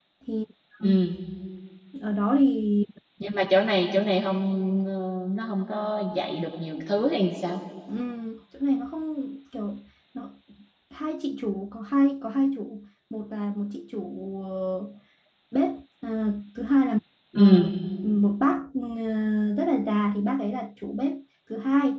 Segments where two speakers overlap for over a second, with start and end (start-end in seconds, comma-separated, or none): none